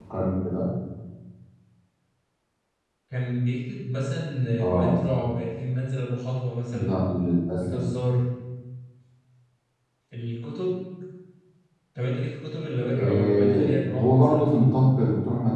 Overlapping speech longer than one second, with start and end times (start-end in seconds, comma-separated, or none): 13.0-14.4